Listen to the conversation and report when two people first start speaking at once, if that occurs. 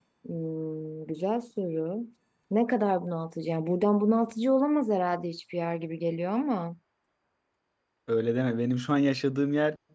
none

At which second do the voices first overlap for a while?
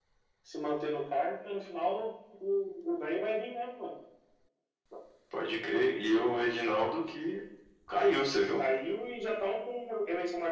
none

